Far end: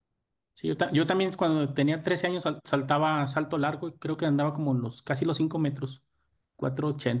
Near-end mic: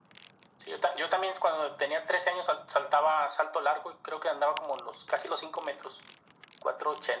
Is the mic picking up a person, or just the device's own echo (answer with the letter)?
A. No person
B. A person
A